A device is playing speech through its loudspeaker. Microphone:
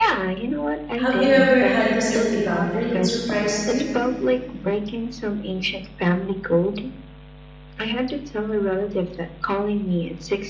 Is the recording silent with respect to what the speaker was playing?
No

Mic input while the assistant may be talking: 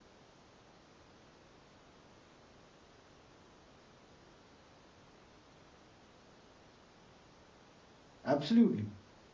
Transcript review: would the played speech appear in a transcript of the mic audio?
No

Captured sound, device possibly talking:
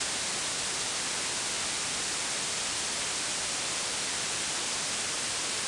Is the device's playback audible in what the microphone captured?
No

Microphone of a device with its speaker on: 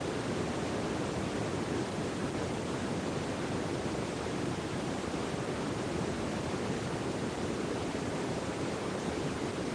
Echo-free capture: Yes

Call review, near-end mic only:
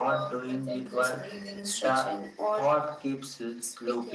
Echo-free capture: No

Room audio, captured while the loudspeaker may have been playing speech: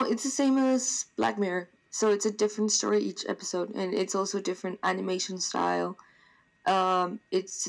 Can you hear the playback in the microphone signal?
Yes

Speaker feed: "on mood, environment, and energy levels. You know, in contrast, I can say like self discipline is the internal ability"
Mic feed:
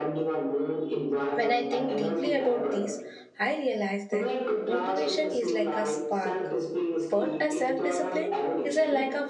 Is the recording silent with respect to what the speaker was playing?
No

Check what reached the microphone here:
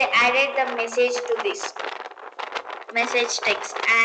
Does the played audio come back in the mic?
Yes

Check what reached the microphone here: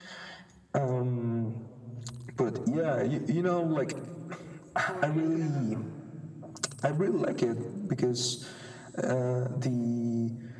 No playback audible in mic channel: No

